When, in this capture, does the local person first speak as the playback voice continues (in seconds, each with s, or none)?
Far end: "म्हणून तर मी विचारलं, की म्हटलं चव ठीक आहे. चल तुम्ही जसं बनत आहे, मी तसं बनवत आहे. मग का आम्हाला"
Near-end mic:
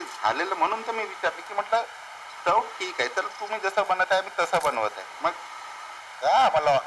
none